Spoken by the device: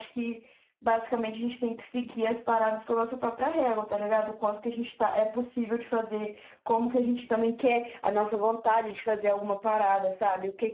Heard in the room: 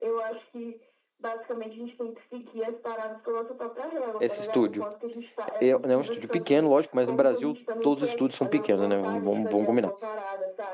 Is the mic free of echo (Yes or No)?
No